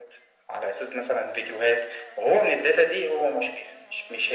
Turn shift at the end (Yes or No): No